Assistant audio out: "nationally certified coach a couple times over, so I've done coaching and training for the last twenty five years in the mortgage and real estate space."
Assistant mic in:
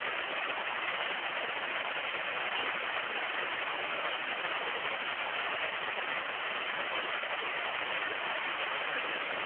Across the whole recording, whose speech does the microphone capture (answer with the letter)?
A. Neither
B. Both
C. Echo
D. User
A